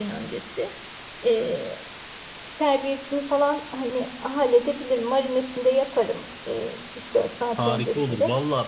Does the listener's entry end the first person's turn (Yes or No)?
Yes